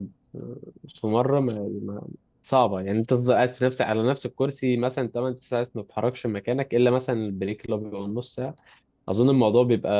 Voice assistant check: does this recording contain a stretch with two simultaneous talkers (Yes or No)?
No